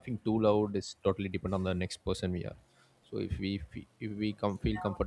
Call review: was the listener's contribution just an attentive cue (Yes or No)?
Yes